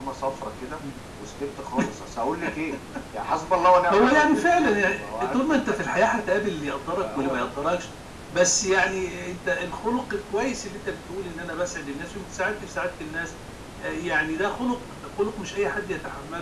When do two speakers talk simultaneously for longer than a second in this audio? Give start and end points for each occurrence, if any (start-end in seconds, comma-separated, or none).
3.9-5.3